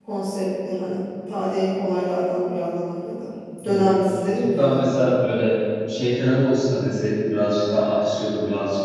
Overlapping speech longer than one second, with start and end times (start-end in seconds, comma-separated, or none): 3.6-5.2